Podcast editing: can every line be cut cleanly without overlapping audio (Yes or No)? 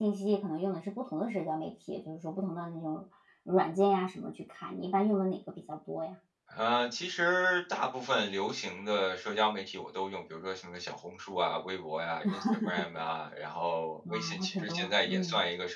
No